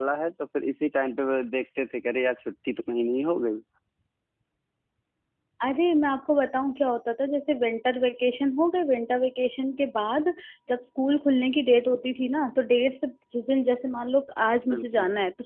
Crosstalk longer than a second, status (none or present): none